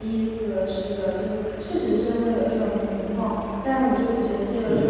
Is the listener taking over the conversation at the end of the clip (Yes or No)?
No